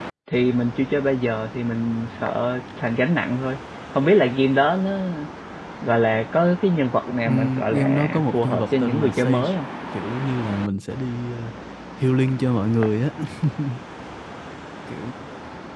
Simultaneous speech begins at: 7.2 s

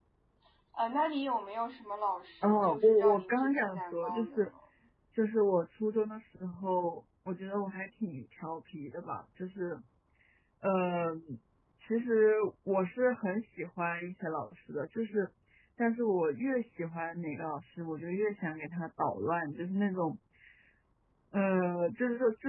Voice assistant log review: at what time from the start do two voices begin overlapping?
2.4 s

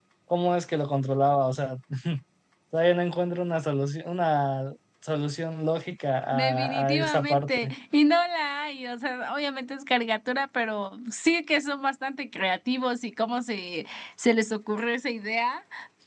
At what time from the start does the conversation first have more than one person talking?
6.3 s

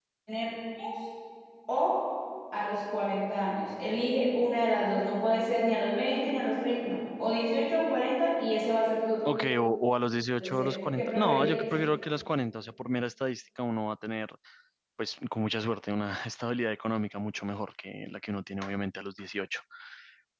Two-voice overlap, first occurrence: 10.4 s

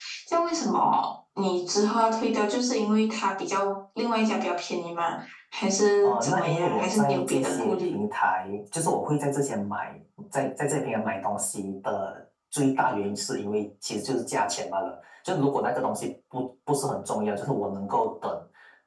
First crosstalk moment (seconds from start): 6.0 s

